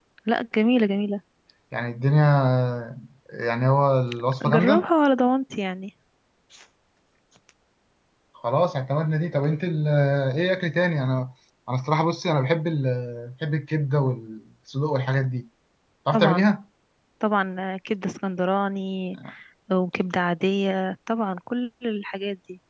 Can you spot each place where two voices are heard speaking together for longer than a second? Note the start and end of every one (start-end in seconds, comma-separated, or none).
none